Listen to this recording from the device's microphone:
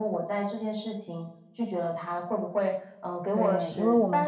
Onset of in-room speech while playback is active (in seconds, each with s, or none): 3.3 s